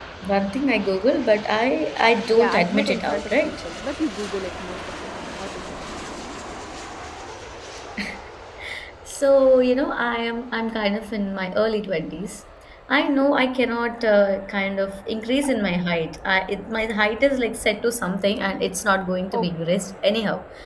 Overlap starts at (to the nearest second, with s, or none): 2 s